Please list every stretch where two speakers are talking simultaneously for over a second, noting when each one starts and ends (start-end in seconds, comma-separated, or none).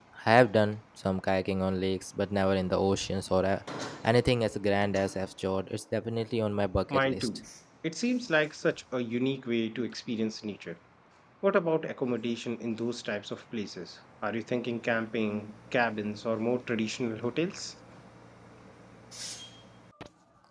none